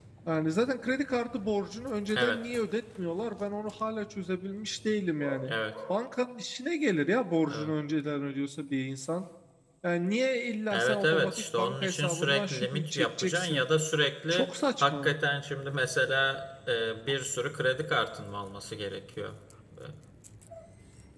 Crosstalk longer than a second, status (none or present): present